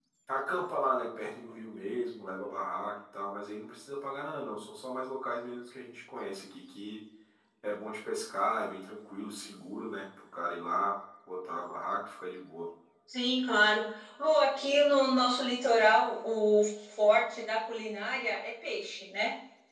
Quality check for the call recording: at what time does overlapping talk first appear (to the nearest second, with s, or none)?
none